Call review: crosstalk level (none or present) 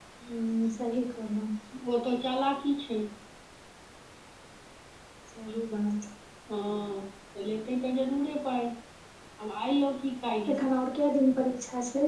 none